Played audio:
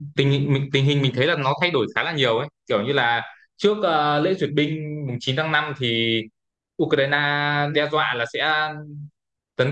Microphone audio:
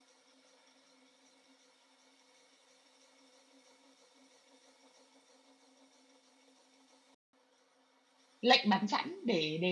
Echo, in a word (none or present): none